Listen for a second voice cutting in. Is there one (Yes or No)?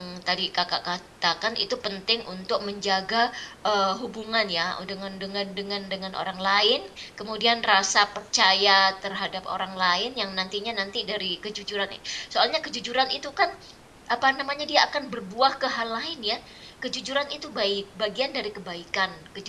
No